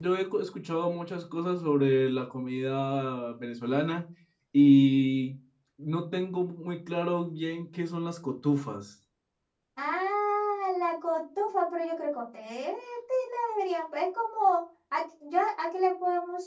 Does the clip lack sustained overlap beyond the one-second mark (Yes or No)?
Yes